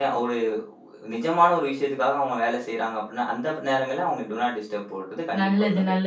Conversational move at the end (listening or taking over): taking over